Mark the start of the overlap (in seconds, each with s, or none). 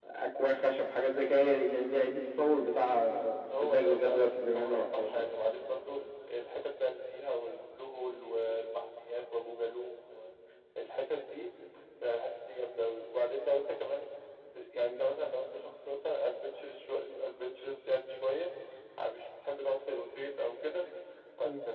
3.6 s